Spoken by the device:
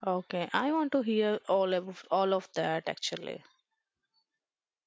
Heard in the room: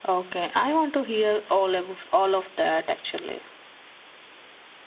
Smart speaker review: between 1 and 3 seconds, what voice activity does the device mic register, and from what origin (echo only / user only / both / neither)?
echo only